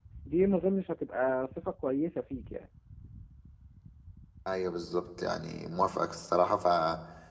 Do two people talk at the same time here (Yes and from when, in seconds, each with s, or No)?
No